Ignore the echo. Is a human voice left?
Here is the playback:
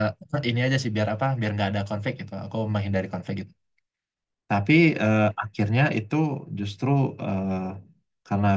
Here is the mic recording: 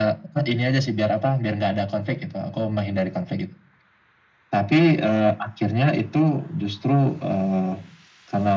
No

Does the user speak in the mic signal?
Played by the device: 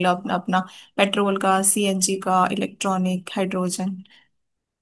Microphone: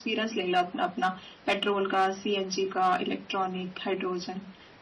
No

